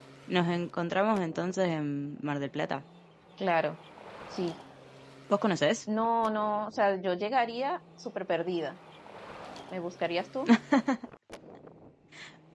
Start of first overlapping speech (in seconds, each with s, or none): none